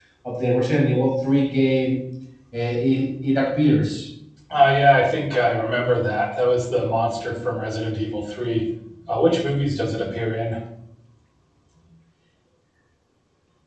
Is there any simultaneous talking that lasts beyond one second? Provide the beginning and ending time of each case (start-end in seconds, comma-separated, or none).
none